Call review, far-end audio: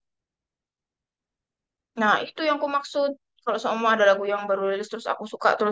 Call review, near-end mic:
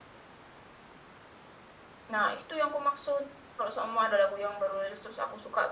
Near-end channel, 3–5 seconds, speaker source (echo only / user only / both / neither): echo only